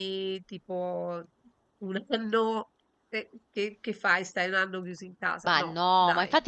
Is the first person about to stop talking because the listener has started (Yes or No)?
Yes